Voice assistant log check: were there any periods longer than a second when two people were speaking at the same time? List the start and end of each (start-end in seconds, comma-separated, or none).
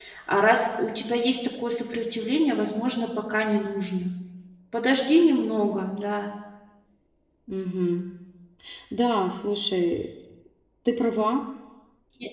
none